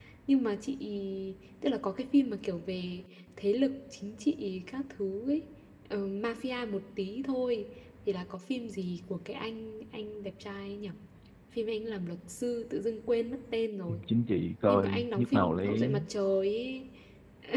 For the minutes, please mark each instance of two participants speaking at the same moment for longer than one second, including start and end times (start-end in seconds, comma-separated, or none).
14.7-16.0